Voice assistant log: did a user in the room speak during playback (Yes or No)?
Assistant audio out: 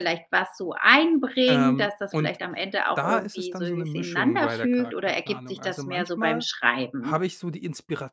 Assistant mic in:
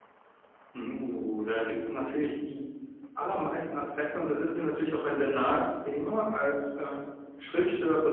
Yes